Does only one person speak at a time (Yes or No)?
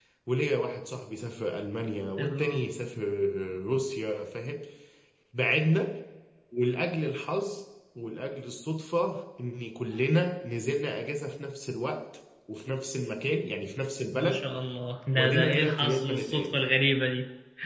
No